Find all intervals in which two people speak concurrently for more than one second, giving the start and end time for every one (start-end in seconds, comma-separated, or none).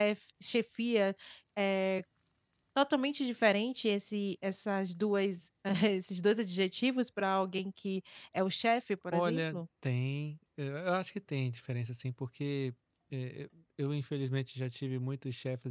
none